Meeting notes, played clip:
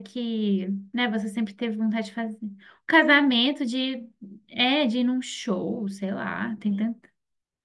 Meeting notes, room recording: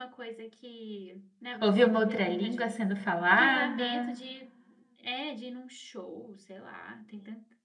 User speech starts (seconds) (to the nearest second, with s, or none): 2 s